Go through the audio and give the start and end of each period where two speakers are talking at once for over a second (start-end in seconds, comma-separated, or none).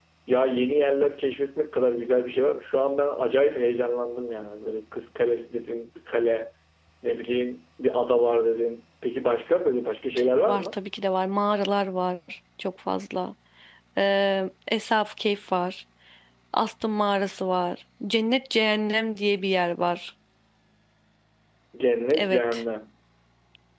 none